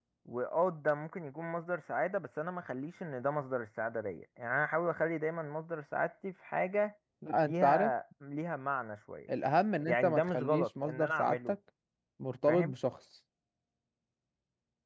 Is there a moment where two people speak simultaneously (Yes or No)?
Yes